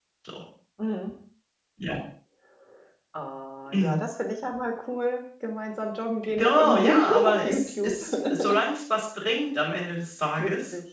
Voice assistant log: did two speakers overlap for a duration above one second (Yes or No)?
Yes